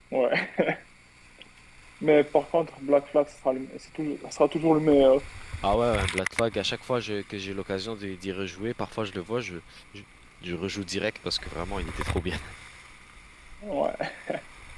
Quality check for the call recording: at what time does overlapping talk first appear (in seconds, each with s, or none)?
none